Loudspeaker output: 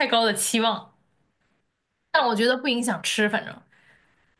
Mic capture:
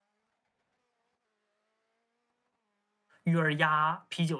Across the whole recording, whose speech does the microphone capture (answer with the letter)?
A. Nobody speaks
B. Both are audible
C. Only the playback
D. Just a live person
D